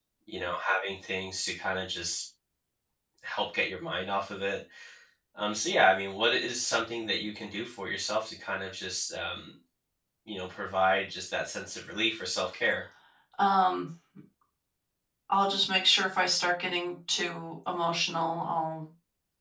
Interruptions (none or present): none